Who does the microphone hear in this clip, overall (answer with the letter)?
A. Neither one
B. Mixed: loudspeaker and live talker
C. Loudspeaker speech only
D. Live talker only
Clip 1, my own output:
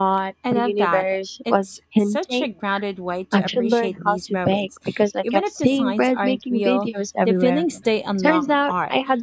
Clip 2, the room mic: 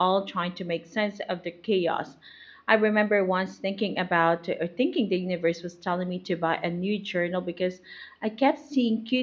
D